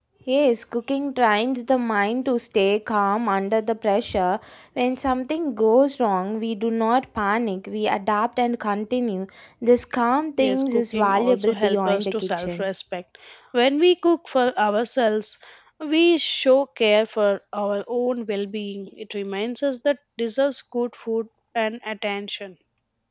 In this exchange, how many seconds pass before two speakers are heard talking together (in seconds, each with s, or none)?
10.4 s